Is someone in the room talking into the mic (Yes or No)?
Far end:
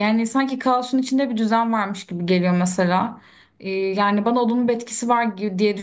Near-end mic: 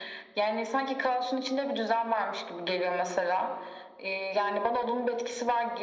No